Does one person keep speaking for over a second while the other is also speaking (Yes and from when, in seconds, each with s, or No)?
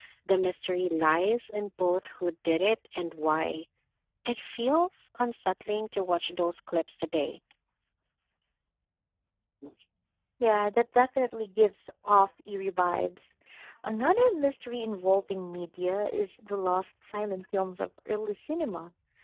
No